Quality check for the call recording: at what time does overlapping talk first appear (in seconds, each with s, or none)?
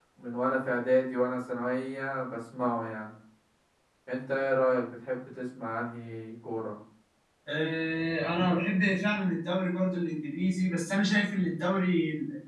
none